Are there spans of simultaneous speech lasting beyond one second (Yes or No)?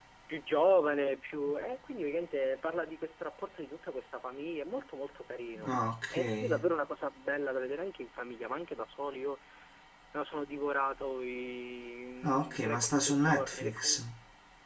Yes